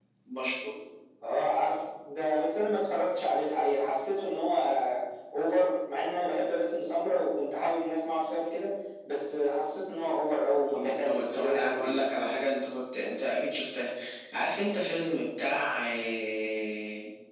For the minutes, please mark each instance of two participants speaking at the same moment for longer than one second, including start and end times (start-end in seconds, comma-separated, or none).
10.7-12.1